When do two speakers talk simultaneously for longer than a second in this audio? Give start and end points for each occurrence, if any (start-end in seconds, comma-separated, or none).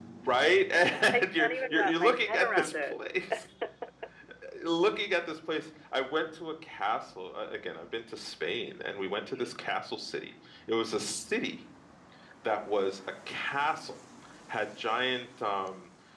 1.4-2.9